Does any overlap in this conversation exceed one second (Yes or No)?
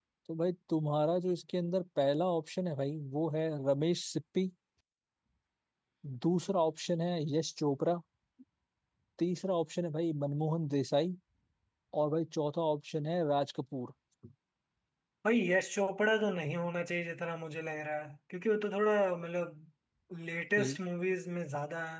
No